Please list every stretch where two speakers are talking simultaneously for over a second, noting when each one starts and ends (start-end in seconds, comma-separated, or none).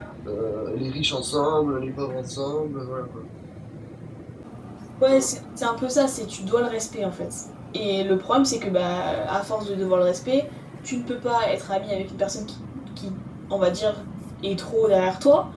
none